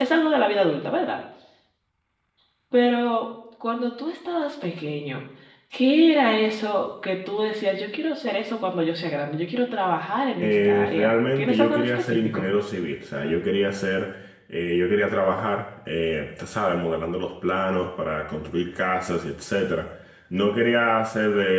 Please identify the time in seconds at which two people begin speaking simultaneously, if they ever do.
10.4 s

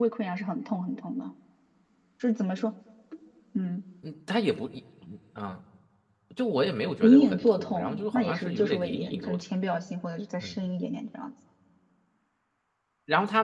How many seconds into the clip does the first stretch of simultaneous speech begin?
7.0 s

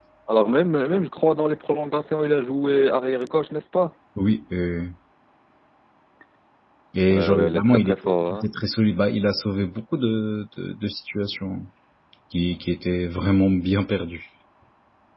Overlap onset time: 7.1 s

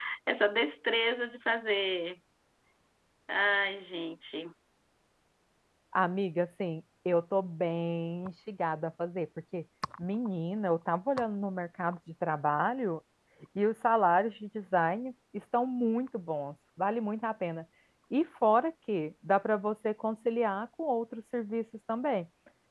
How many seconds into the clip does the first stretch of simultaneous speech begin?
none

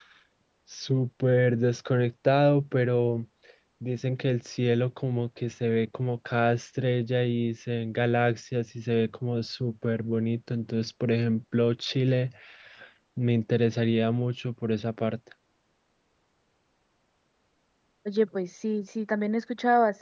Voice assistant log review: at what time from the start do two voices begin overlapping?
none

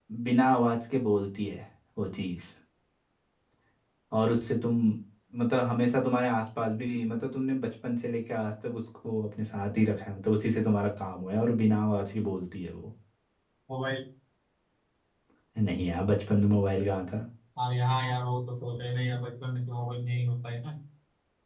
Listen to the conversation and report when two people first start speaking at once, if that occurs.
none

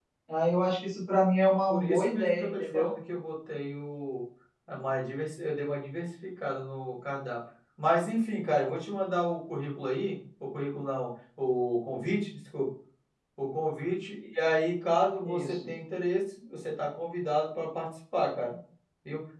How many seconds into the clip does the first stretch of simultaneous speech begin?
1.7 s

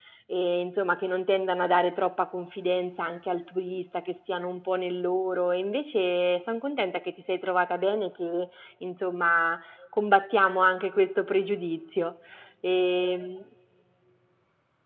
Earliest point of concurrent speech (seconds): none

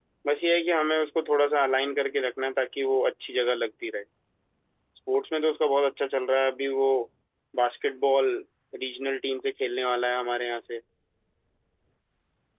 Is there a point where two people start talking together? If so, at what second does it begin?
none

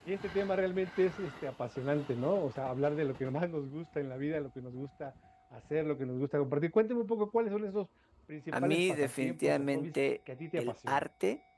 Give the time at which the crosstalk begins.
8.5 s

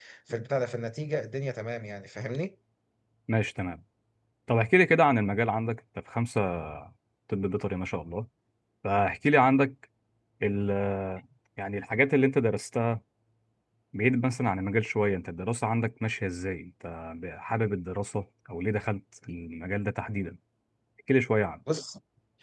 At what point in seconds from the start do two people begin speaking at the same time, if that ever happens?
none

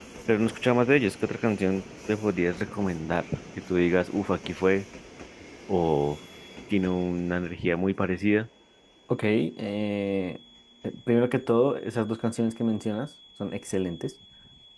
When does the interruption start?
none

